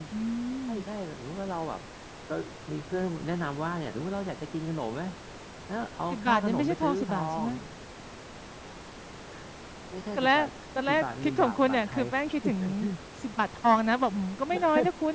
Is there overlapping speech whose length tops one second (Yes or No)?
Yes